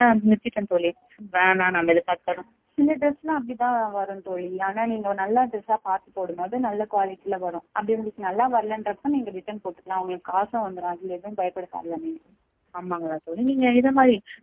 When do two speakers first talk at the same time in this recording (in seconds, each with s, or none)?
none